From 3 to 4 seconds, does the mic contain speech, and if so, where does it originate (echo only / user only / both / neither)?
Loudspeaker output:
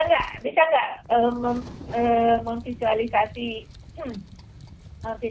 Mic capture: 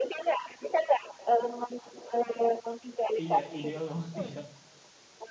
both